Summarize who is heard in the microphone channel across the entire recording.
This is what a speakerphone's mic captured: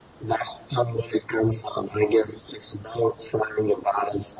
echo only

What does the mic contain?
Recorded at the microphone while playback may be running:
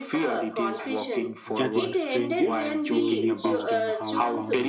both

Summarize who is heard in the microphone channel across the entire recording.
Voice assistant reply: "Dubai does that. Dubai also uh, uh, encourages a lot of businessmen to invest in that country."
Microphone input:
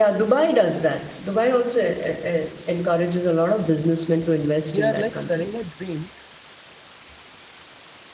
both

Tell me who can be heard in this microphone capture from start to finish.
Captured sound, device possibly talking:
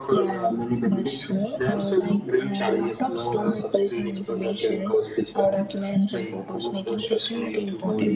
echo only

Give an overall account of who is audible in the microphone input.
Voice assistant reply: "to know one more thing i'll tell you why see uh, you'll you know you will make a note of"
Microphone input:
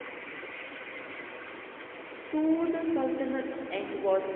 user only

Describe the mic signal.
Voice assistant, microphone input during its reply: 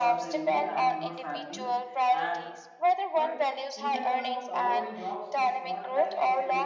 both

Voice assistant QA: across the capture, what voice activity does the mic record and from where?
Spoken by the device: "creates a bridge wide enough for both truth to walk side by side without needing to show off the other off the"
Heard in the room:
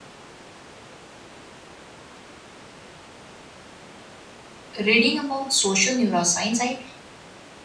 user only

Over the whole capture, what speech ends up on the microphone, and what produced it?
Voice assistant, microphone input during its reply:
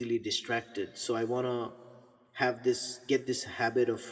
user only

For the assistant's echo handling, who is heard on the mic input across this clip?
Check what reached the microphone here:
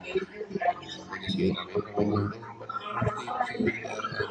echo only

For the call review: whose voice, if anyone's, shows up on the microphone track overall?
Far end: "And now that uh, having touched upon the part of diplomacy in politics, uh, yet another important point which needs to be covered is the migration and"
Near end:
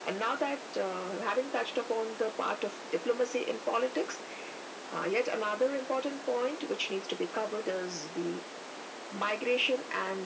echo only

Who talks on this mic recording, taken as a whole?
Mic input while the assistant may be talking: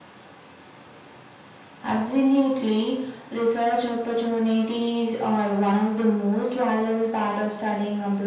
echo only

